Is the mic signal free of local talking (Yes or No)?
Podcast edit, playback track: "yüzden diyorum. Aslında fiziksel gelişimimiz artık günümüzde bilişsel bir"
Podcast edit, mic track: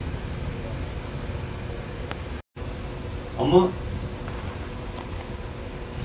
No